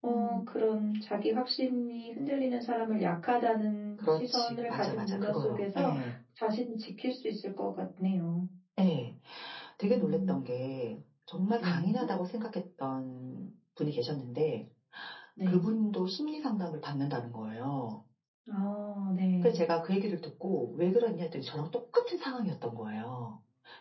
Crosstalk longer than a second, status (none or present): present